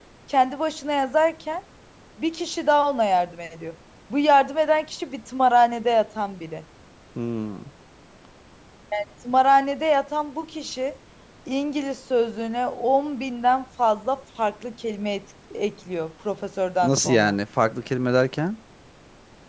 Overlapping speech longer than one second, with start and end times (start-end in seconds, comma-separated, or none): none